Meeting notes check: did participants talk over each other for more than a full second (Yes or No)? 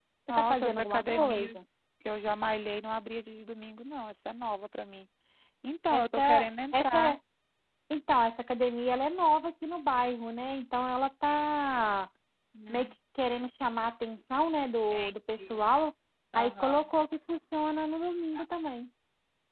Yes